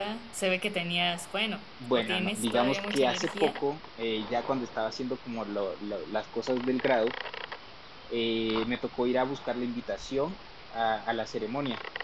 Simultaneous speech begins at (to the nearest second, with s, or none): 2 s